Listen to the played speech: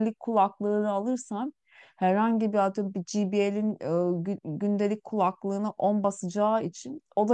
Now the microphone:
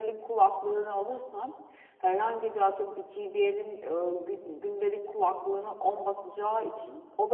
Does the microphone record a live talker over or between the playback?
No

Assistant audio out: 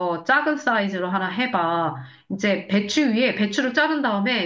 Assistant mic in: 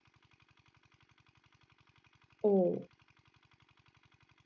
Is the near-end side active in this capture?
Yes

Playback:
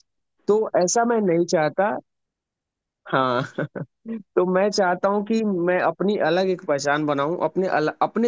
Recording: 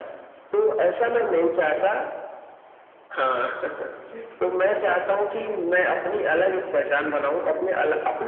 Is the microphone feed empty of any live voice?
Yes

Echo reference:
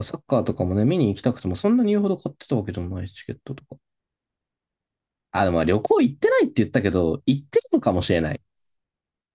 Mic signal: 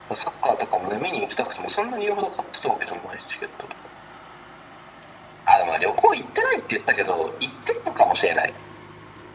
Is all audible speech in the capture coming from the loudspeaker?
Yes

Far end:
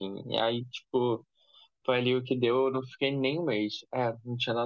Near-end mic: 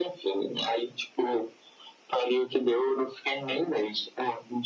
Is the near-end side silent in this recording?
Yes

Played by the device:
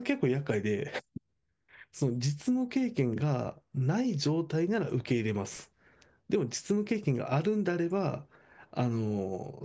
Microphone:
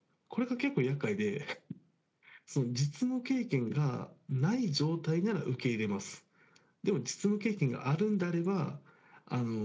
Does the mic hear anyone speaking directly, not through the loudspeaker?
No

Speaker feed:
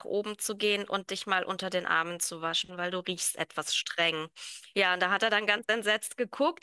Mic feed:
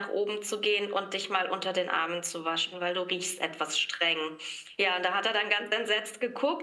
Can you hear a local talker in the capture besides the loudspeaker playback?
No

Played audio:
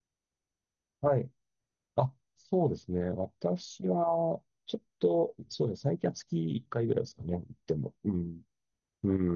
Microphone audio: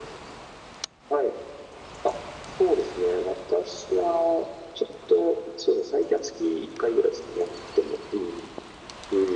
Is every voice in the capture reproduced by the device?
Yes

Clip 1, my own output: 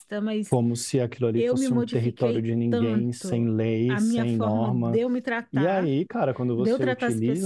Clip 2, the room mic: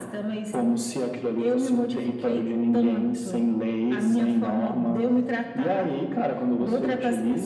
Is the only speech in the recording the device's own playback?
Yes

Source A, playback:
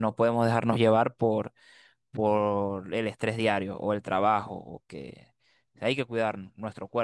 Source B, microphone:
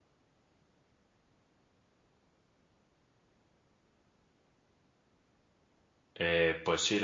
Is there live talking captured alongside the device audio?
Yes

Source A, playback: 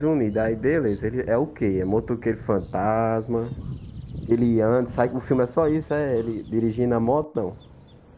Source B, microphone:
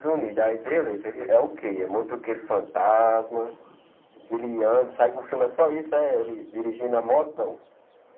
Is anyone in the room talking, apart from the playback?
No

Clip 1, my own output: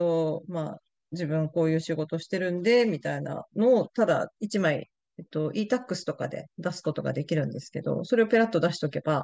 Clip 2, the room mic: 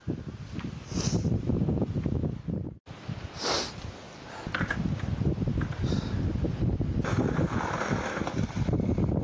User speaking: No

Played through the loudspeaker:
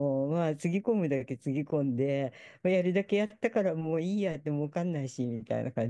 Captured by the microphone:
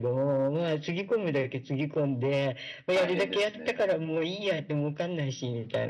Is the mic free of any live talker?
No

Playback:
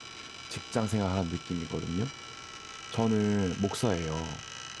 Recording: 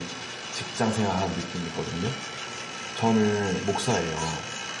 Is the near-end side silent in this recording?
Yes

